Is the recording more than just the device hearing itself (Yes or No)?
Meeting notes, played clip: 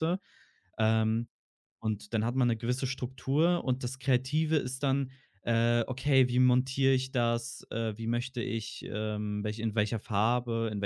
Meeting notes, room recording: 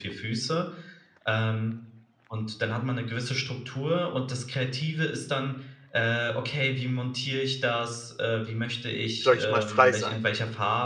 Yes